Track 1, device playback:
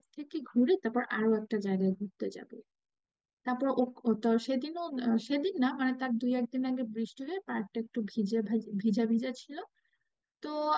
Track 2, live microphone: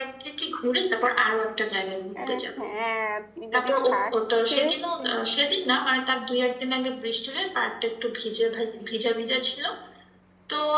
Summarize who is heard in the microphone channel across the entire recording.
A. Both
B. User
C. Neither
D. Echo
A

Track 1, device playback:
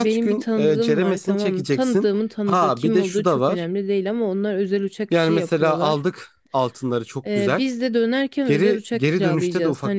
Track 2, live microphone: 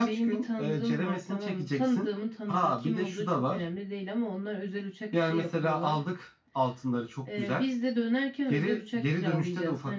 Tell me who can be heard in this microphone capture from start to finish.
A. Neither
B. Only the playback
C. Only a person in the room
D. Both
B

